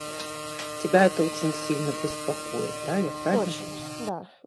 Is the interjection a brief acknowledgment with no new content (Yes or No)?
No